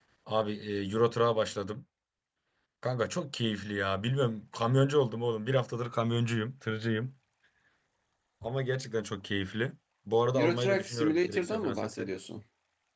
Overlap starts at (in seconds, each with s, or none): 10.3 s